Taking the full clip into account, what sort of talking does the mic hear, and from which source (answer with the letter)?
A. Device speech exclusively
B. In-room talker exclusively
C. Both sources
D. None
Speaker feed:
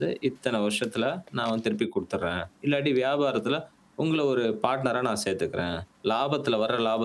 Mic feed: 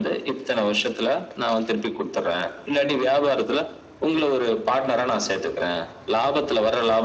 A